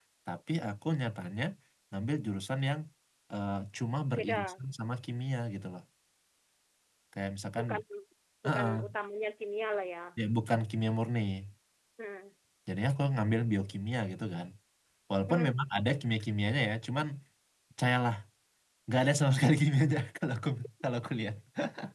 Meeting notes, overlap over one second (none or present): none